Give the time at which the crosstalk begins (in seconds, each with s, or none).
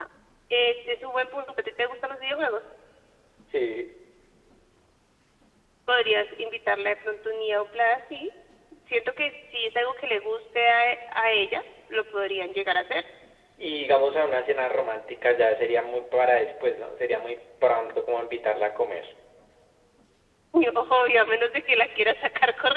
none